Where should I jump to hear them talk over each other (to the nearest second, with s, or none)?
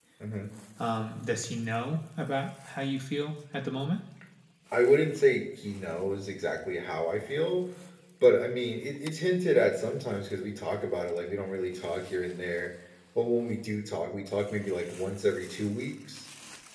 none